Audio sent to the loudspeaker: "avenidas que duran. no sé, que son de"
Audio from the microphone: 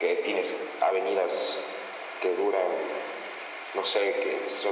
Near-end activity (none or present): none